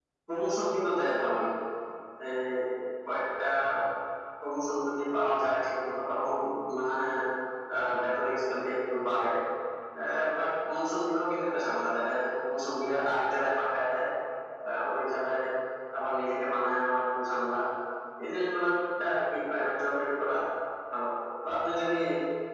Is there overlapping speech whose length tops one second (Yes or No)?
No